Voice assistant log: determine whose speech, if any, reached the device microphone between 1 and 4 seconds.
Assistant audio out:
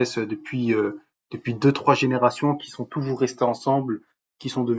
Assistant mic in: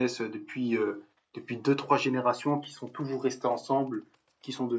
echo only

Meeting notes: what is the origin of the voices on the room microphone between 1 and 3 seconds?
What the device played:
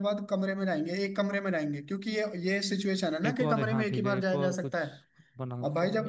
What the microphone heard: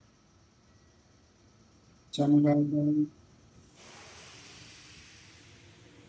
user only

